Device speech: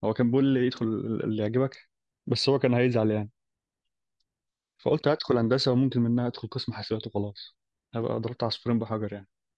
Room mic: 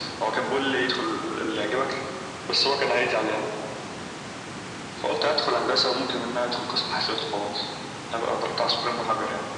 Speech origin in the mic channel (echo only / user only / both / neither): echo only